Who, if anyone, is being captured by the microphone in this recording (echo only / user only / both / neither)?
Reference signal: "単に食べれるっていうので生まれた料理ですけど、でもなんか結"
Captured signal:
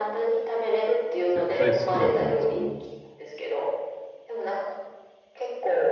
both